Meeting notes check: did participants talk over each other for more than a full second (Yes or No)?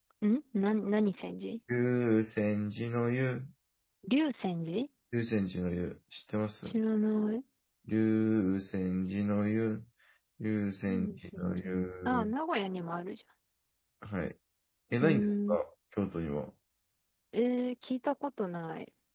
Yes